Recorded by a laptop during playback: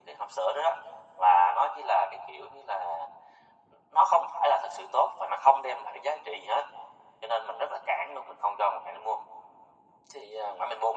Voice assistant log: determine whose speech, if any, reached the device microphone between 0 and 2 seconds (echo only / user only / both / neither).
echo only